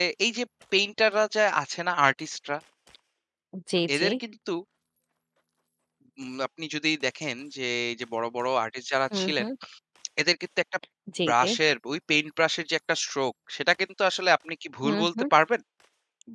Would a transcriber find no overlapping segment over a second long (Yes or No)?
Yes